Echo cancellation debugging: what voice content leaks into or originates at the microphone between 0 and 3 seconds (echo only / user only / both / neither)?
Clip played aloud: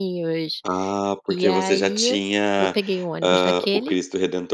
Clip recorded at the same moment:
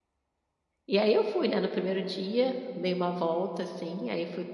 user only